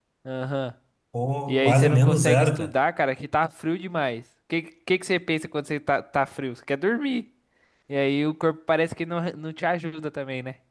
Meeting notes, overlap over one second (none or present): present